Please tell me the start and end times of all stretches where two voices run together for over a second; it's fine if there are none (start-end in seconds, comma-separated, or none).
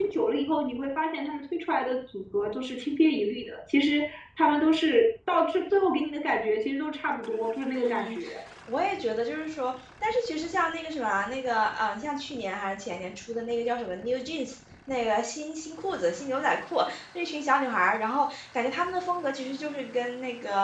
none